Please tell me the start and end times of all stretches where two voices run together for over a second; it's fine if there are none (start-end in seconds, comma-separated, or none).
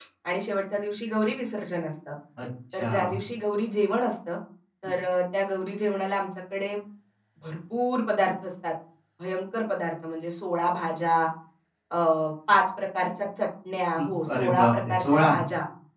14.0-15.3